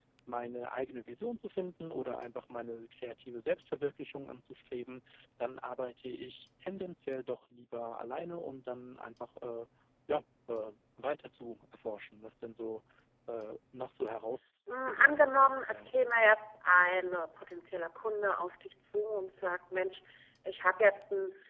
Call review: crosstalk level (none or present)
present